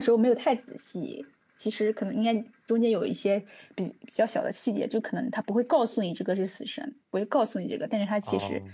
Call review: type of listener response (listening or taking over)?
taking over